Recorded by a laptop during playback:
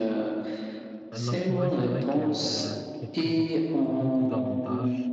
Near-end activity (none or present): present